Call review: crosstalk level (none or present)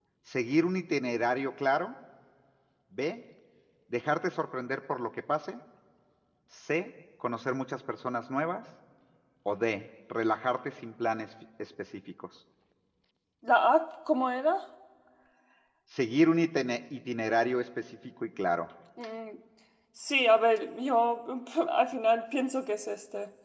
none